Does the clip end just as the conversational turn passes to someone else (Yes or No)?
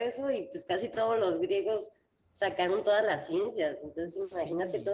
No